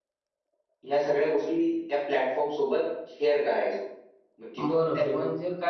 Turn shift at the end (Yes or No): Yes